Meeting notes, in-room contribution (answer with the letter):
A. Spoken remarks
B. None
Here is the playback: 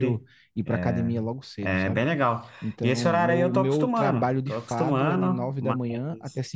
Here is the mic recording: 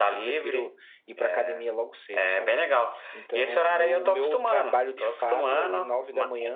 B